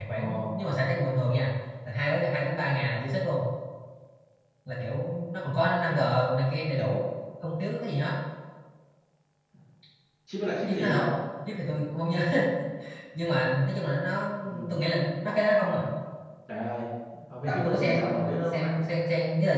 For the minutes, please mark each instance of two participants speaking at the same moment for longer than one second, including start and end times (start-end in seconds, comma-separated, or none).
17.4-18.8